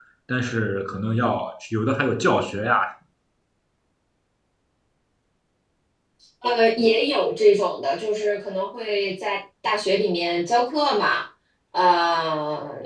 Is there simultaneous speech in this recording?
No

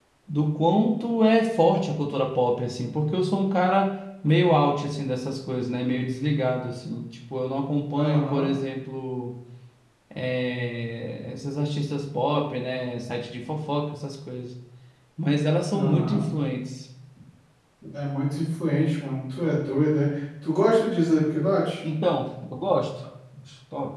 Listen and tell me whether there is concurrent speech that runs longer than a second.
No

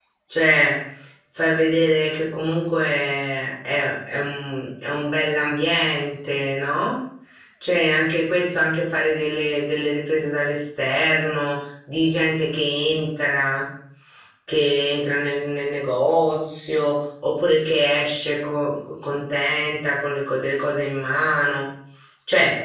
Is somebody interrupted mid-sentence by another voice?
No

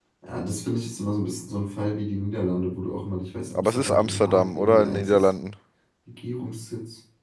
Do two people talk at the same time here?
Yes, from 3.5 s

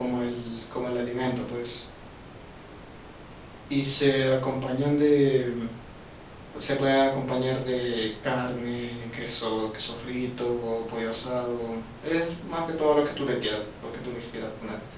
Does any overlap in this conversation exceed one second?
No

